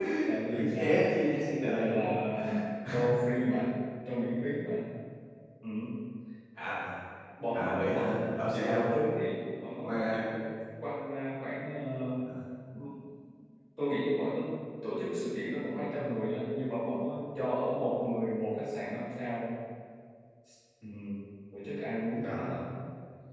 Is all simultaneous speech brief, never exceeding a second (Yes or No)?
No